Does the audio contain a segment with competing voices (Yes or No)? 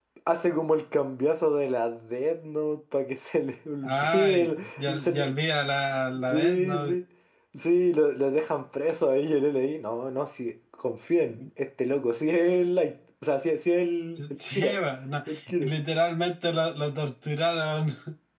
Yes